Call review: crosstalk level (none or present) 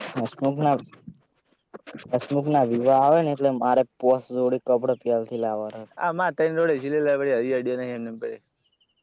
none